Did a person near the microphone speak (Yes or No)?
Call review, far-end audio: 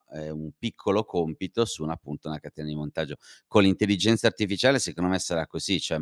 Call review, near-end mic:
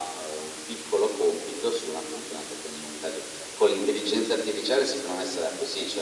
No